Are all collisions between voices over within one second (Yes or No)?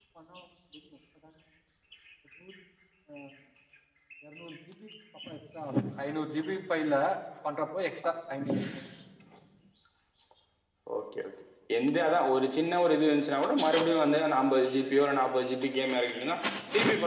Yes